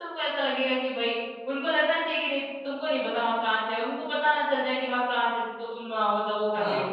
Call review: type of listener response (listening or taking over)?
taking over